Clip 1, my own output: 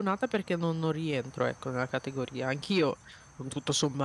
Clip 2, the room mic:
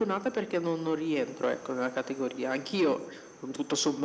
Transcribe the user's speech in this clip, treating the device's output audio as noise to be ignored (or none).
none